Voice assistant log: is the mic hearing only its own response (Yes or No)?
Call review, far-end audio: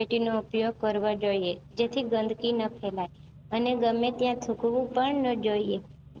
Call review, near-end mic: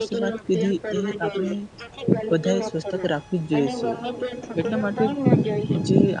No